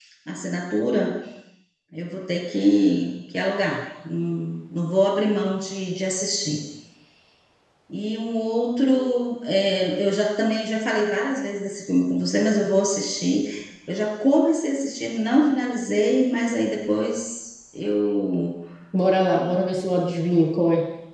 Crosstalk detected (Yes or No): No